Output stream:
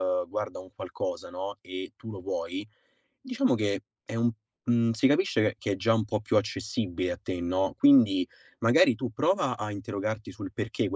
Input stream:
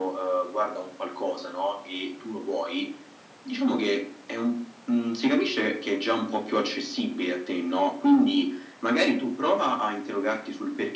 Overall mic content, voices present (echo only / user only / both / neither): echo only